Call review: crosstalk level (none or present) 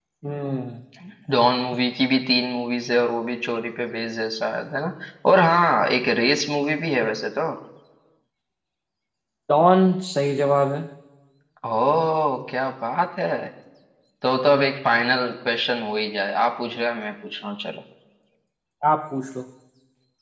none